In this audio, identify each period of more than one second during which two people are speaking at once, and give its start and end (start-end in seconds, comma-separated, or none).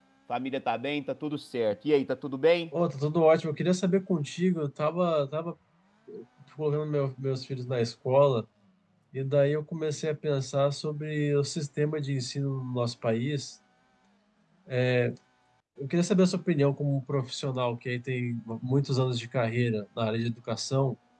none